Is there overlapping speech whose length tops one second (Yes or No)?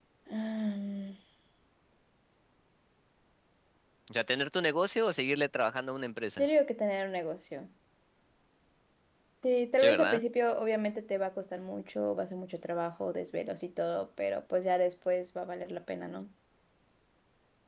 No